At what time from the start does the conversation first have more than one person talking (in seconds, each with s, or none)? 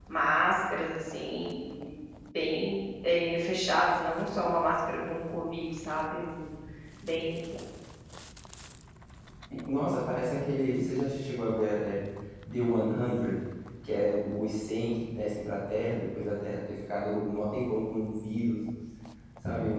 none